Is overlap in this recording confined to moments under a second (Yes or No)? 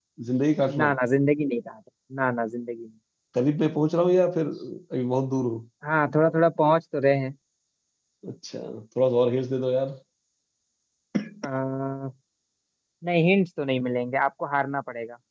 Yes